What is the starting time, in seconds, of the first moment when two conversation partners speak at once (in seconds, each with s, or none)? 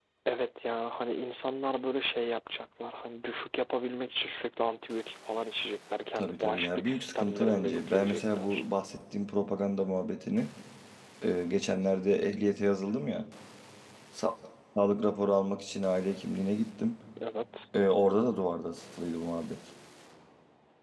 6.2 s